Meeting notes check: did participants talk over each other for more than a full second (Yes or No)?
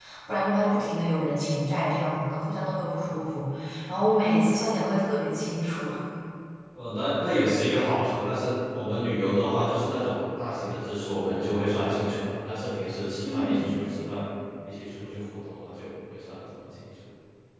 No